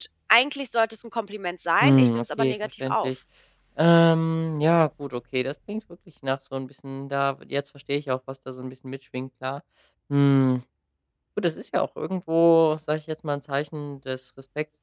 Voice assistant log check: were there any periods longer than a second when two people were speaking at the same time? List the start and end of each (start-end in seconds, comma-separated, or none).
1.8-3.1